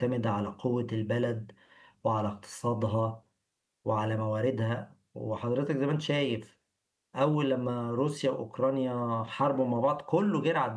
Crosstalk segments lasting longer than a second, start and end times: none

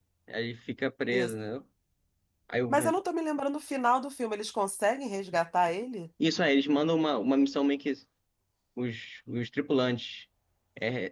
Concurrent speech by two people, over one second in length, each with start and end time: none

